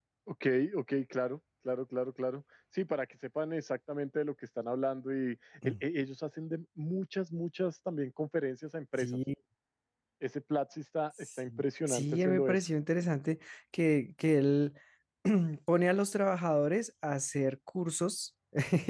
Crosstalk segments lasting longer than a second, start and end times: 11.2-12.6

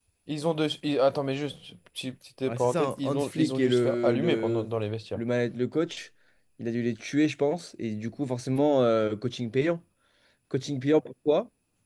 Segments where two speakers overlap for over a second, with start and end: 2.5-4.7

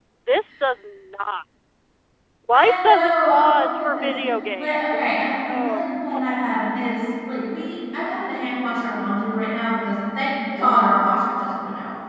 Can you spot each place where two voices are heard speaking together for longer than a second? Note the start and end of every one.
2.5-4.1, 4.6-5.8

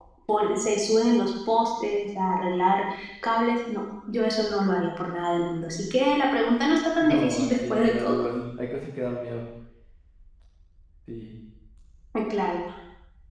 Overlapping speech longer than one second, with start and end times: 7.0-8.3

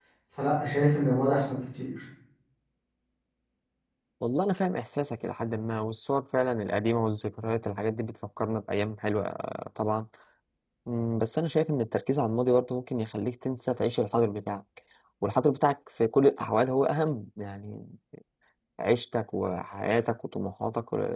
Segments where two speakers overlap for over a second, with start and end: none

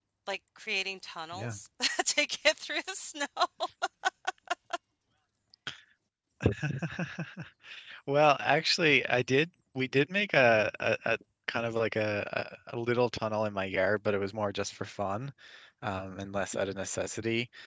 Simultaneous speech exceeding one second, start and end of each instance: none

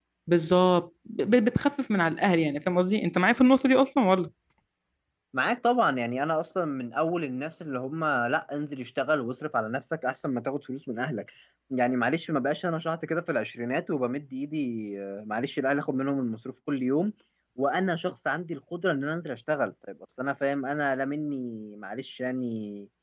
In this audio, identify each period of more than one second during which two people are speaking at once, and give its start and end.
none

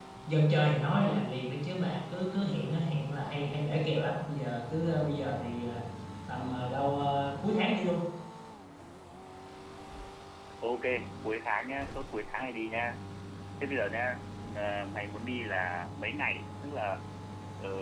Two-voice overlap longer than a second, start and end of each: none

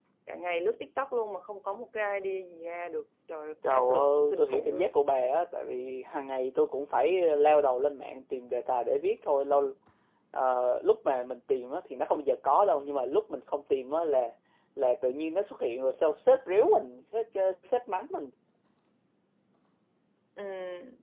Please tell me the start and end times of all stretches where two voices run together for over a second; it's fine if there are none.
3.7-4.9

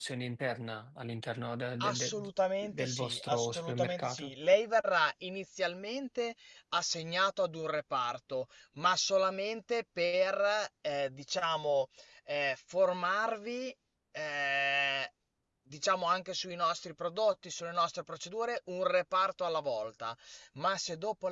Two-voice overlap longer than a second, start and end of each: 2.6-4.3

